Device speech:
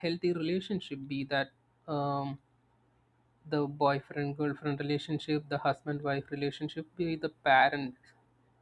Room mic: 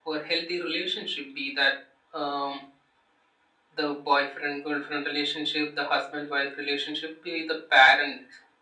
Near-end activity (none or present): none